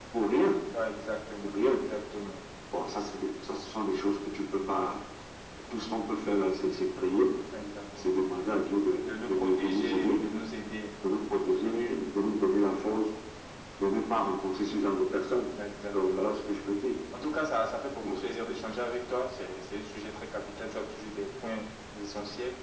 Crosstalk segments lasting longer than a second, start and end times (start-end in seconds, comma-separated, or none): 9.0-10.2